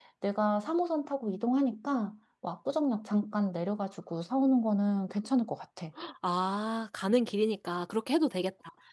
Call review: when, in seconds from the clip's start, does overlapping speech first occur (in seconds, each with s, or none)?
none